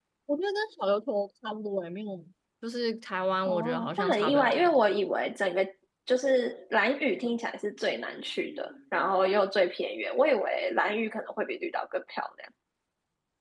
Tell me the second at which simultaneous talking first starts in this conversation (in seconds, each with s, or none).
3.5 s